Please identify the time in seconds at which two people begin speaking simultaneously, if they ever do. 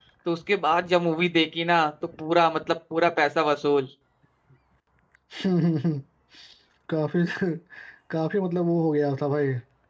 none

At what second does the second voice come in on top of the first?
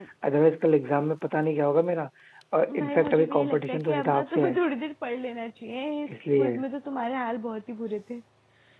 3 s

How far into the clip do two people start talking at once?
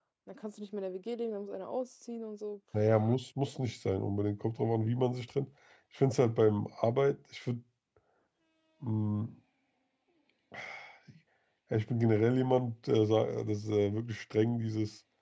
none

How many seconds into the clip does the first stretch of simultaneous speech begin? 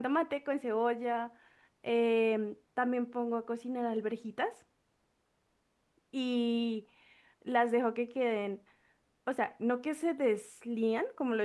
none

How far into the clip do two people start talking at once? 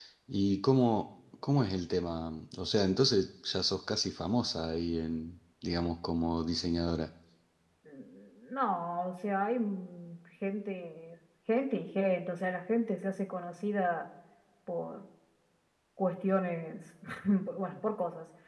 none

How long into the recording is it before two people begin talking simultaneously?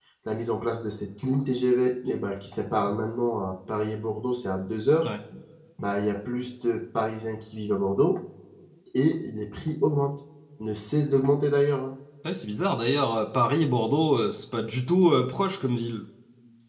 none

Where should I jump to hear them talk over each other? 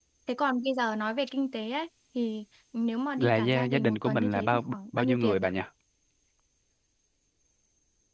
3 s

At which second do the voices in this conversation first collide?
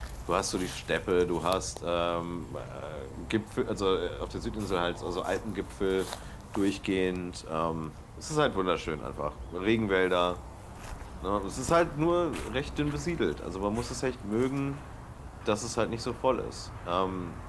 none

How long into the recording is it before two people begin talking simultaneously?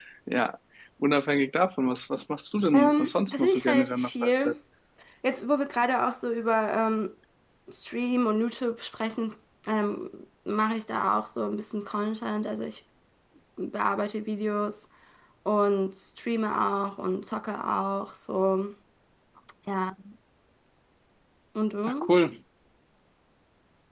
3 s

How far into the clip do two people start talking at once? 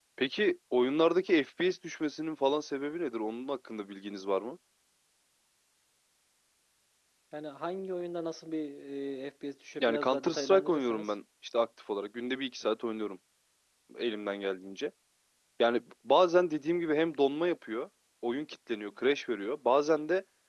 10 s

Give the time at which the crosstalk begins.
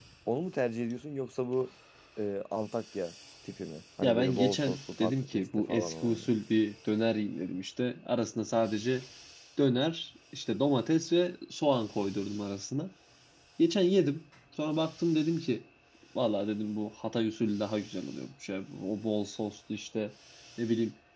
4 s

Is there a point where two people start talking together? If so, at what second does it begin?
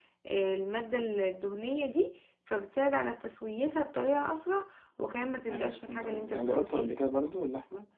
5 s

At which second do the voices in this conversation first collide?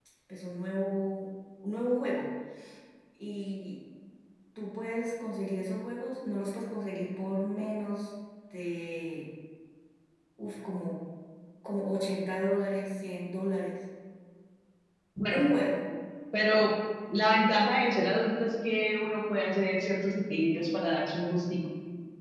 none

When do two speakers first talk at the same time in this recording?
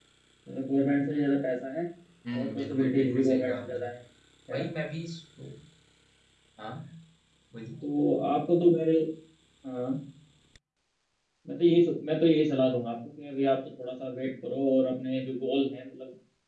2 s

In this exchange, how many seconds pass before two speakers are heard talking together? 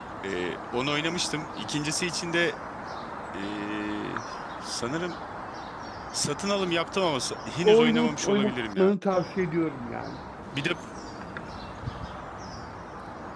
8 s

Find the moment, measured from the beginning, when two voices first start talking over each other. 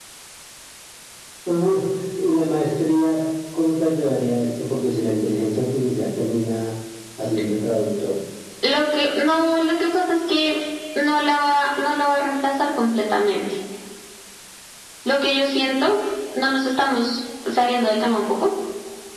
none

